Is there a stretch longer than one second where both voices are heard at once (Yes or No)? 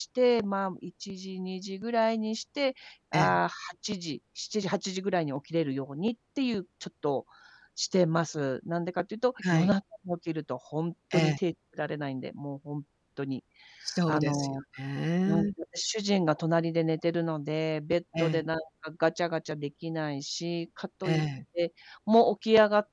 No